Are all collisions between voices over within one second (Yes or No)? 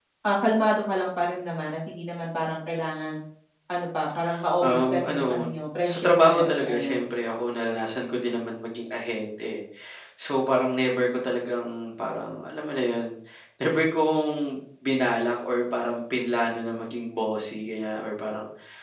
No